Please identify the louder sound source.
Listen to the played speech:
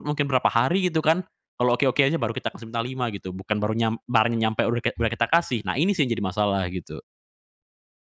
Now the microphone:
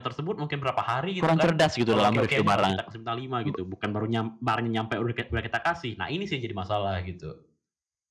user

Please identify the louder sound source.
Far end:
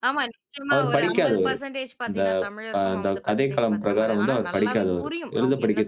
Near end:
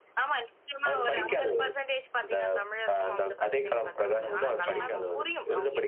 user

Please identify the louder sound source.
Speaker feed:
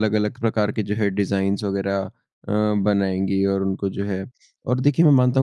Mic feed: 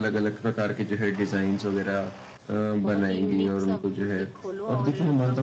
echo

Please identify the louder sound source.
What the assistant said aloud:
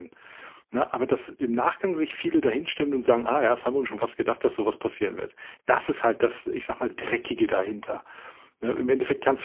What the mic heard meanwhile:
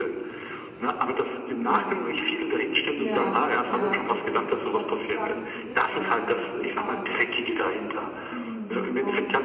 echo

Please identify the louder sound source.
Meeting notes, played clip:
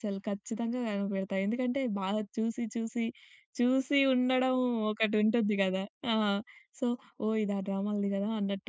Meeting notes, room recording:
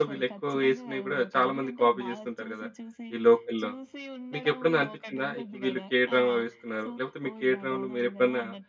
user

